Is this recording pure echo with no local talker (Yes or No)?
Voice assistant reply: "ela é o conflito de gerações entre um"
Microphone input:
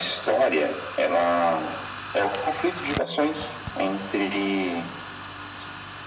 Yes